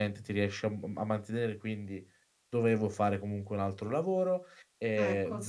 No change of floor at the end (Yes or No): Yes